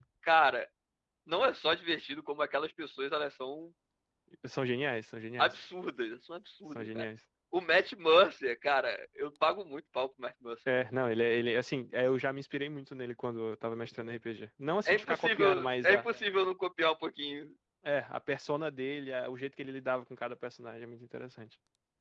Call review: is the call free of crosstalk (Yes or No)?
No